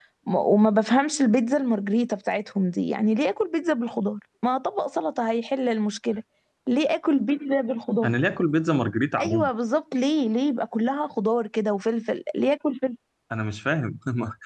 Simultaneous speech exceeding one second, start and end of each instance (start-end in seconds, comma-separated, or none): none